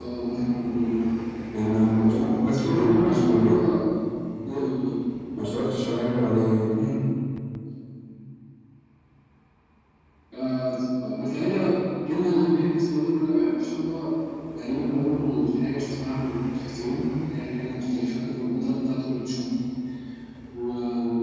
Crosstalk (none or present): present